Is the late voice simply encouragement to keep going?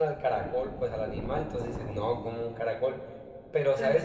Yes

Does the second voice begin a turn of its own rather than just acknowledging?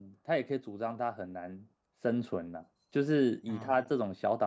No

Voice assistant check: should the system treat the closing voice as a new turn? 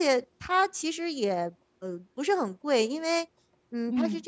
No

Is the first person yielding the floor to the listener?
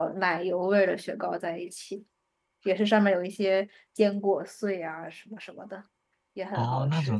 Yes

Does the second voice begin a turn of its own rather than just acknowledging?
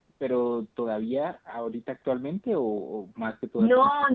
Yes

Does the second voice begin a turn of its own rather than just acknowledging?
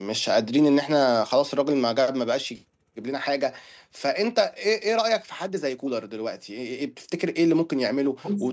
No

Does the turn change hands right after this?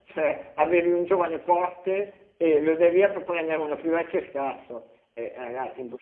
No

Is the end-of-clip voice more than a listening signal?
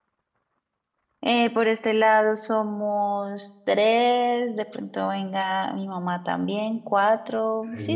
Yes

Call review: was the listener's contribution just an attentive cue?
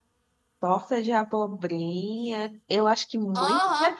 No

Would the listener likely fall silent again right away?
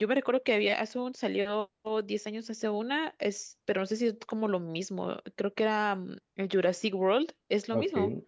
No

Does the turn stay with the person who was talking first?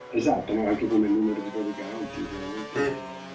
Yes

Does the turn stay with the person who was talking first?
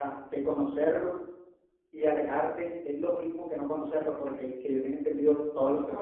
No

